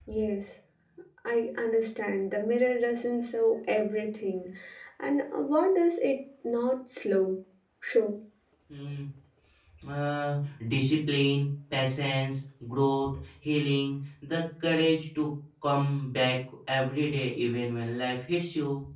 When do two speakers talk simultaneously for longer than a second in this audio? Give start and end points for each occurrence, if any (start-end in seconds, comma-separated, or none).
none